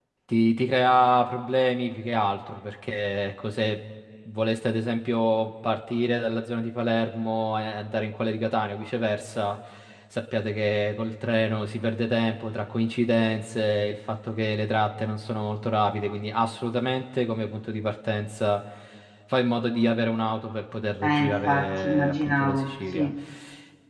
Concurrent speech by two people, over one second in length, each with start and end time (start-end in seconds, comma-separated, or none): 21.0-23.1